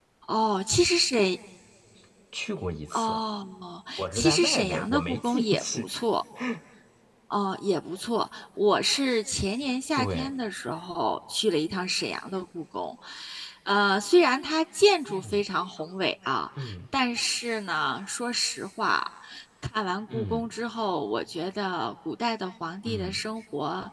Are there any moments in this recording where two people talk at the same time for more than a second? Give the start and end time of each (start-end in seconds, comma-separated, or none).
4.1-5.9